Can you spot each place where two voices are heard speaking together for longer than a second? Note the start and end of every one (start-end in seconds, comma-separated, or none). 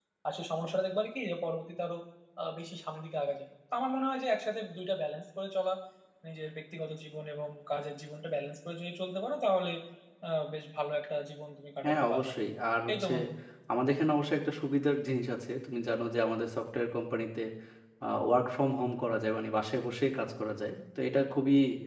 none